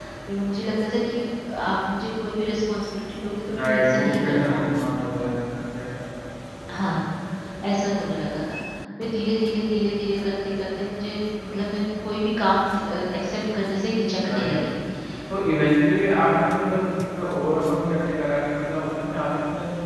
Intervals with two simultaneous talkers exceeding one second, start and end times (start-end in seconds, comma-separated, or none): 3.6-4.9